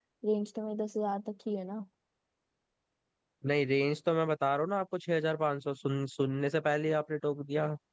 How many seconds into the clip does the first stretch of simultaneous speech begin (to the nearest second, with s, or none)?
none